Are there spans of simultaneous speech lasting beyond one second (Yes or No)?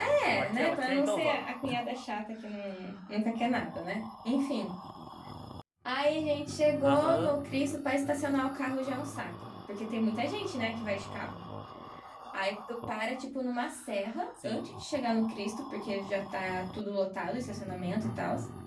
Yes